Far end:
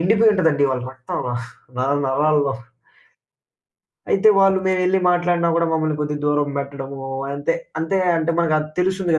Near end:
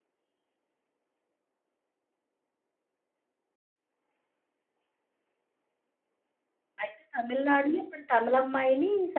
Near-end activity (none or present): present